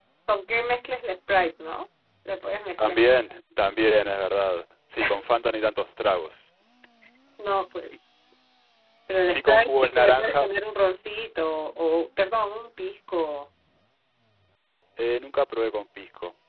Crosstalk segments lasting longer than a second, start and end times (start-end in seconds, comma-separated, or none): 9.3-10.5